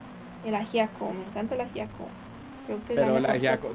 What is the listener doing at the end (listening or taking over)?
taking over